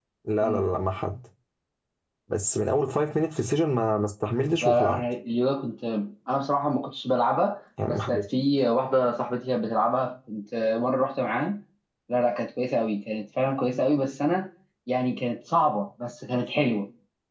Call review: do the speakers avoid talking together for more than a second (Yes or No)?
Yes